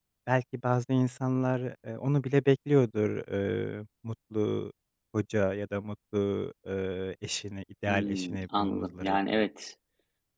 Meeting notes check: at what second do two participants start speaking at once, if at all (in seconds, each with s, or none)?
7.9 s